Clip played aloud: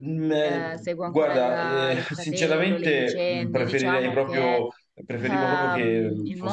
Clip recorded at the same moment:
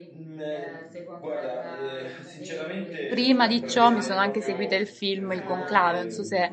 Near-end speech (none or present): present